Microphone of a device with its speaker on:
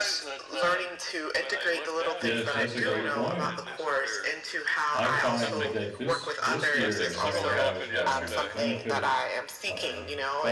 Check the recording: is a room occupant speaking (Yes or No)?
Yes